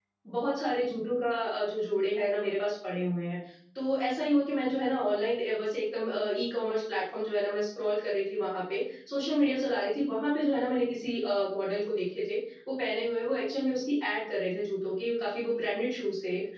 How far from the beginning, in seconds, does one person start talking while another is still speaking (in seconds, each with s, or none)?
none